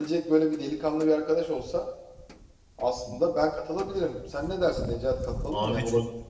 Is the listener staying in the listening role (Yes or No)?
No